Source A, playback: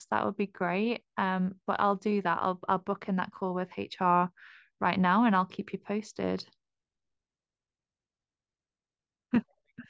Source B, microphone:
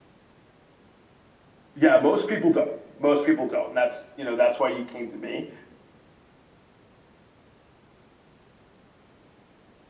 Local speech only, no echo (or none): yeah, most people don't. Most people don't, and that's you know that's why you came to me